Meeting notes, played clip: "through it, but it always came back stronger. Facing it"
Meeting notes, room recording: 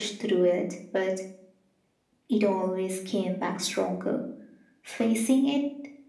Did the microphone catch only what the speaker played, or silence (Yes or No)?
Yes